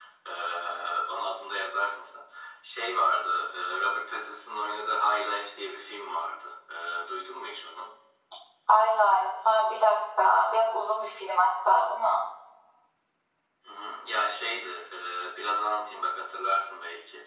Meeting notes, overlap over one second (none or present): none